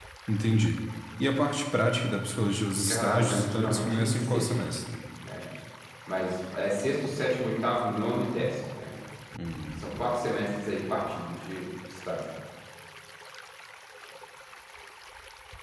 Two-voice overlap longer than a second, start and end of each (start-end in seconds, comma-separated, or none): 2.9-4.5